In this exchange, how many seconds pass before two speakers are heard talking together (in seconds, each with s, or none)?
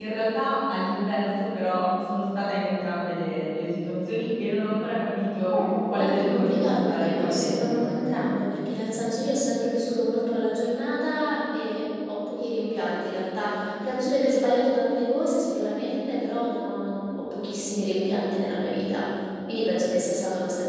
5.5 s